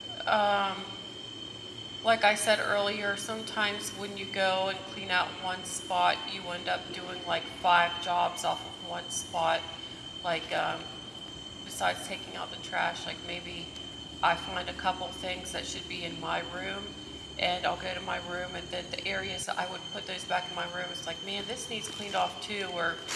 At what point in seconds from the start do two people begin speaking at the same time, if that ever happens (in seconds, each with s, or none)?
none